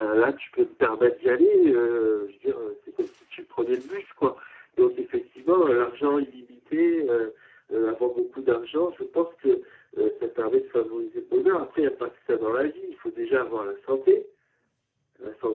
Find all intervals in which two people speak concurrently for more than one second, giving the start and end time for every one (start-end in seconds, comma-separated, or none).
none